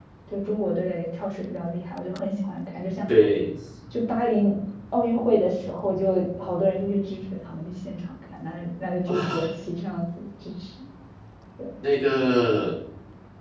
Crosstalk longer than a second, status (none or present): none